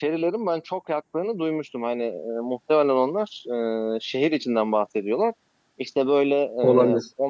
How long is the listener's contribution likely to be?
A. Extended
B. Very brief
B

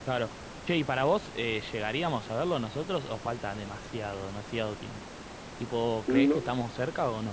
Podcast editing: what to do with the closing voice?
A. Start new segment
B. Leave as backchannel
B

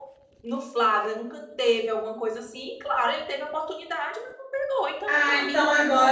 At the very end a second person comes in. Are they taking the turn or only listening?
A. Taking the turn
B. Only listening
A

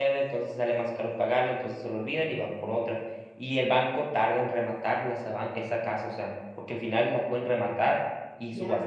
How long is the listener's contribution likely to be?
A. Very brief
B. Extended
A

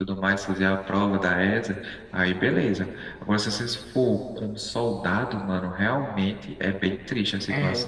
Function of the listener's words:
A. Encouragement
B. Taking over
B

